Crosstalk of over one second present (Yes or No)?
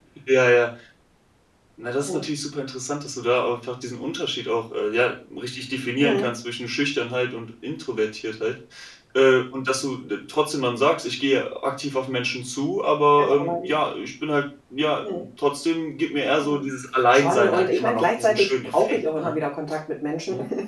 Yes